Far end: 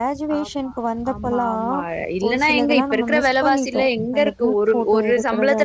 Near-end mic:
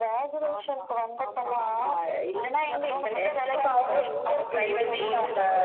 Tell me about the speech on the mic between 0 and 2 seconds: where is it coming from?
echo only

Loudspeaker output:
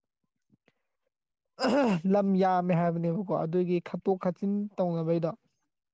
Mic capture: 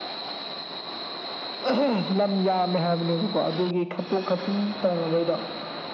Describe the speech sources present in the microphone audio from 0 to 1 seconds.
neither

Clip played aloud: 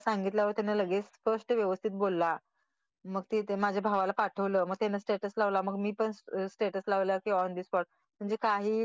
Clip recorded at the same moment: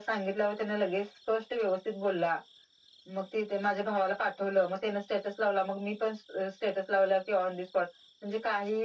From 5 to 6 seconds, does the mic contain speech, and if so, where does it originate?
echo only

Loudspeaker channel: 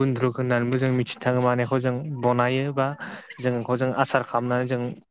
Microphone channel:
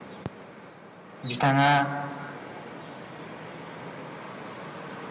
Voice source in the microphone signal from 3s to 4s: neither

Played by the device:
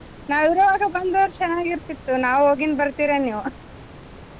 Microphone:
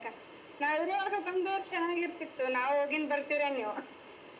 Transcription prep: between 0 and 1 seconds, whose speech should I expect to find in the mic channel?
echo only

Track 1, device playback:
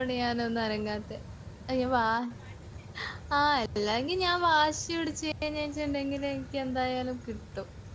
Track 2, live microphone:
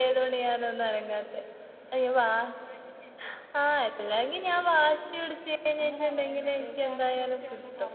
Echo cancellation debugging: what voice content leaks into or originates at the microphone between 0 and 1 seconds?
echo only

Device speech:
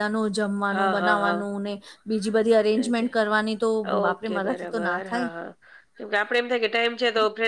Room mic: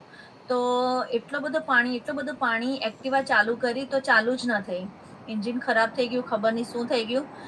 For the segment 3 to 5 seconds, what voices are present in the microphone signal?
user only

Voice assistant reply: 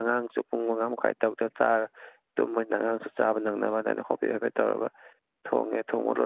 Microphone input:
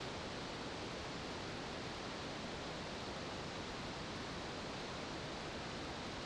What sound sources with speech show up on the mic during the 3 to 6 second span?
neither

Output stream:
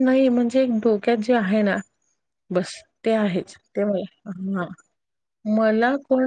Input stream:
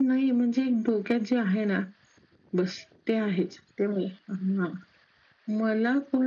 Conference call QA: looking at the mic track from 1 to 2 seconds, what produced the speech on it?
echo only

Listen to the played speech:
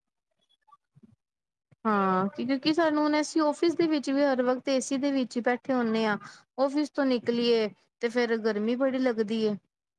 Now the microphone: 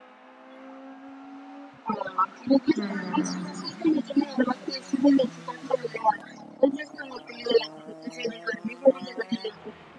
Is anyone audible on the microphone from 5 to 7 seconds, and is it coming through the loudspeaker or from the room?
echo only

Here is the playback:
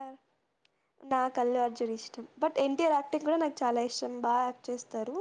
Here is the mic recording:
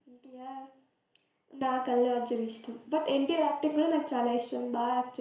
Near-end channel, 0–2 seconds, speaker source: echo only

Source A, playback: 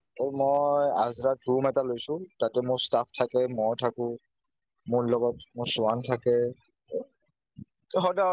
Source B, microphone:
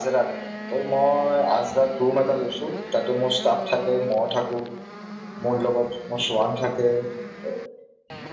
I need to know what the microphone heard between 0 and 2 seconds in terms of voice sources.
echo only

